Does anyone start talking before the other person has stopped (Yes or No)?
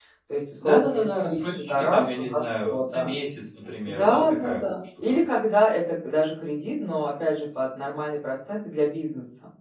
Yes